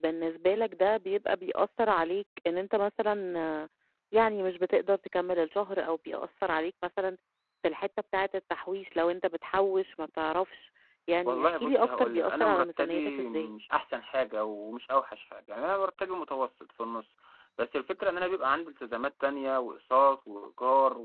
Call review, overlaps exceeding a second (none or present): present